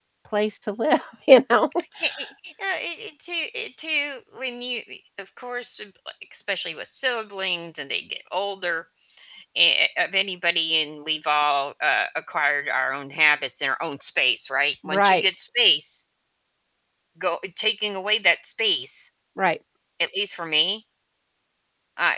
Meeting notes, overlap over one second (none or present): none